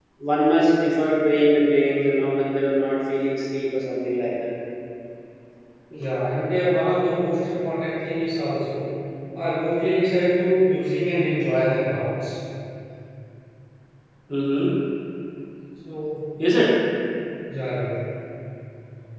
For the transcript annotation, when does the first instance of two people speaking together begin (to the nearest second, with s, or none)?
none